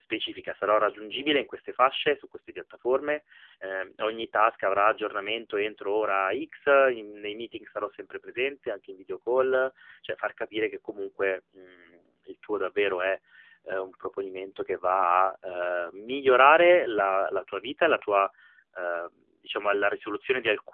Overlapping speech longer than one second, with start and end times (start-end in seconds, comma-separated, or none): none